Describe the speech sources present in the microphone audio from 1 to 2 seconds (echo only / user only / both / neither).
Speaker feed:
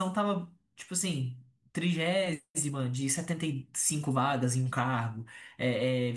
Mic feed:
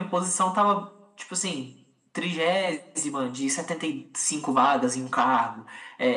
echo only